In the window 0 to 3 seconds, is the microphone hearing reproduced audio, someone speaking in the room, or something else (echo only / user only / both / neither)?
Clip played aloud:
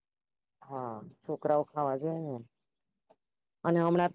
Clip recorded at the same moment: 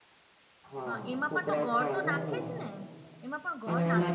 both